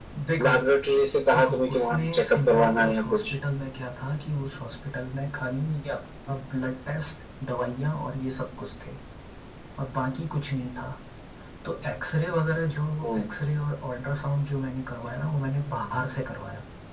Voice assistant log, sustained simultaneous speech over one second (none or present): present